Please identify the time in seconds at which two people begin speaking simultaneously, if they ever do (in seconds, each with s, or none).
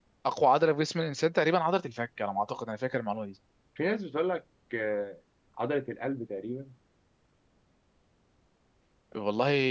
none